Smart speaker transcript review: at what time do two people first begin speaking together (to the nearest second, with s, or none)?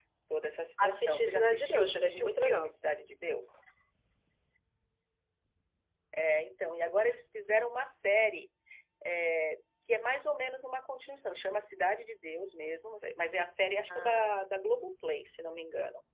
1 s